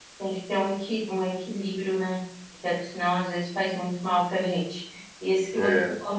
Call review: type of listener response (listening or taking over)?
listening